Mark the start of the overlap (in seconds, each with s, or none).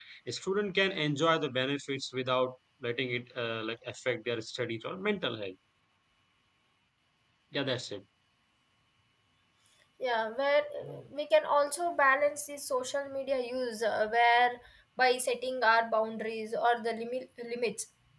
none